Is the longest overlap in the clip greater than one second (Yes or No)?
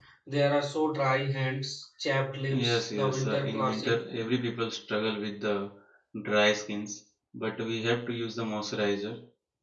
Yes